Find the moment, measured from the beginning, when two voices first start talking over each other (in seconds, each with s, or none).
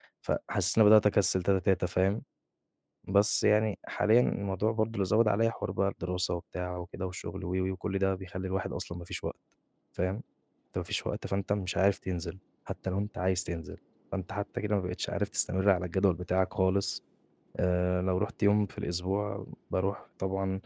none